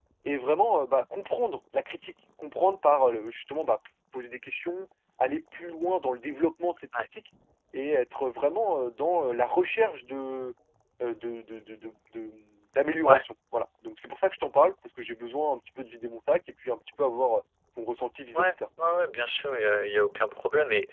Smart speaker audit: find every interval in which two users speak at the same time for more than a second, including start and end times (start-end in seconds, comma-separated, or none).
none